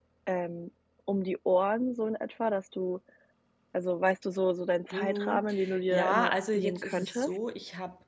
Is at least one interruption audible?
Yes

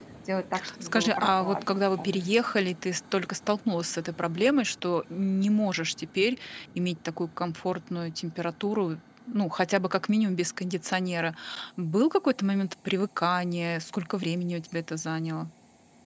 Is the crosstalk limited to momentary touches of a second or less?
No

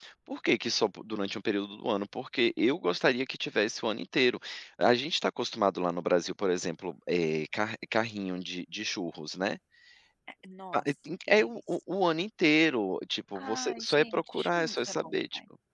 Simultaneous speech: Yes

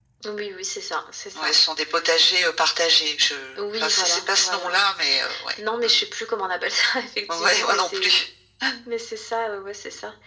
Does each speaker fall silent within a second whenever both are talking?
No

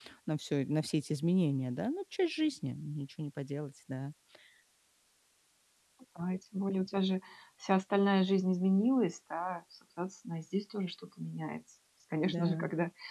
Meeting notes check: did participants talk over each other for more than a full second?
No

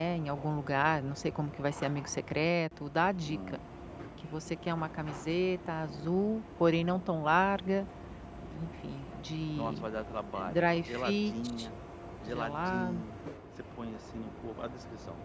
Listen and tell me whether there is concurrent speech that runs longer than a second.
Yes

